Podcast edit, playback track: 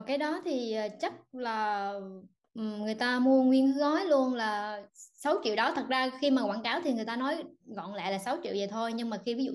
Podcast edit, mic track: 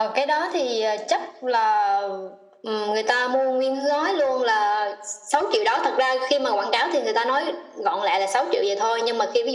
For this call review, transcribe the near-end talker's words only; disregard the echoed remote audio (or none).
none